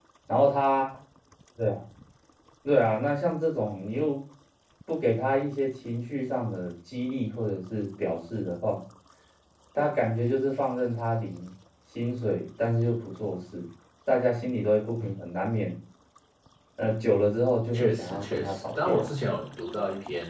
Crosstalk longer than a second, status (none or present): present